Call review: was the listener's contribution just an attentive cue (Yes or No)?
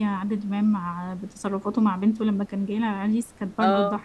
Yes